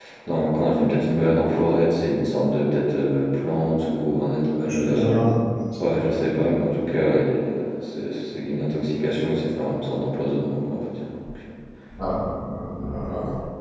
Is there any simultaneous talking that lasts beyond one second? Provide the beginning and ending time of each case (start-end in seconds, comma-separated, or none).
none